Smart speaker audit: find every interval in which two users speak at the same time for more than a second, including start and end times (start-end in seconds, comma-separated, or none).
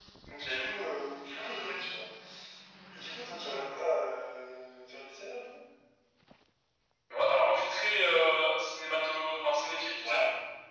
none